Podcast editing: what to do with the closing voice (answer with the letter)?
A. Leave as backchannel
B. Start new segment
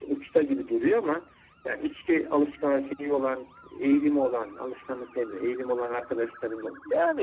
B